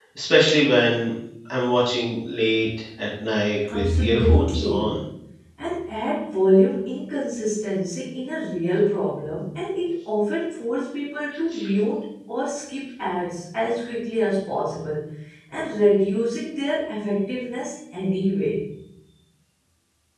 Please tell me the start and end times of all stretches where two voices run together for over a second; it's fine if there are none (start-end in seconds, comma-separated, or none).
3.7-5.0